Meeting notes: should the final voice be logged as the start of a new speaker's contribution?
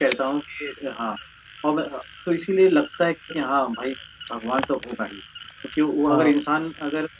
No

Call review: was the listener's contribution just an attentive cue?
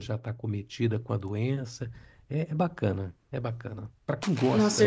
No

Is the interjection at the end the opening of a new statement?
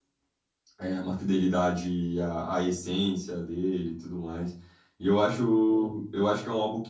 No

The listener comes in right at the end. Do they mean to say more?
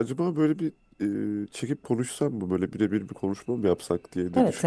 Yes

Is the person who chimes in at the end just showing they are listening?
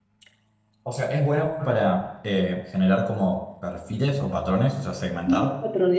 No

